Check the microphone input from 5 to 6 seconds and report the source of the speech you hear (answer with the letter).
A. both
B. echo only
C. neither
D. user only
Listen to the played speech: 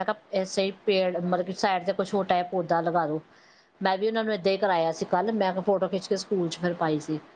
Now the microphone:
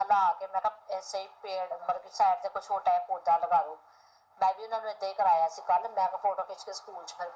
B